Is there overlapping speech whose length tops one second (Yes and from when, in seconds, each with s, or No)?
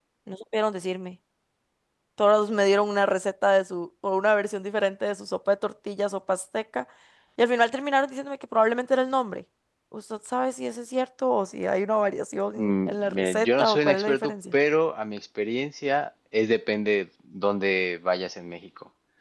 Yes, from 12.6 s